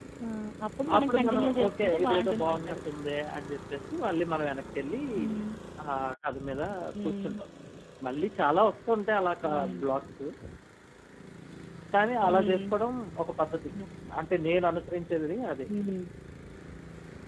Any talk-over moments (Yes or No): Yes